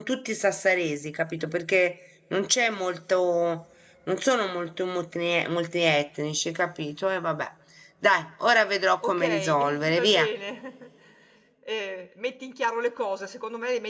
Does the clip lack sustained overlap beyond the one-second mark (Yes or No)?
No